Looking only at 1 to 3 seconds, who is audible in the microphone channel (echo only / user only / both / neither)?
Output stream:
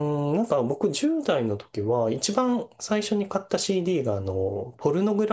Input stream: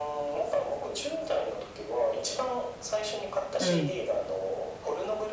echo only